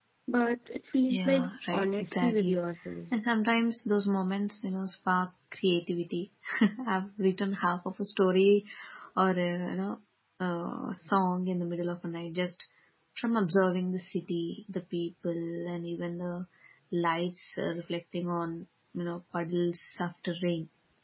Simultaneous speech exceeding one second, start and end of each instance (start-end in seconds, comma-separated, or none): 1.1-2.6